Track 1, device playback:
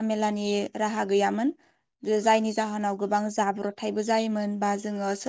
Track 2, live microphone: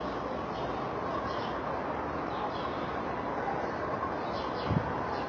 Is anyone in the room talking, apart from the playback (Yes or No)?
No